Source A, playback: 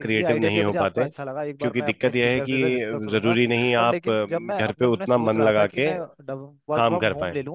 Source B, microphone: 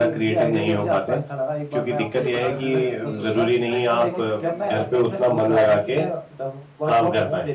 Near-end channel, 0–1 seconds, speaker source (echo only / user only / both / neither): echo only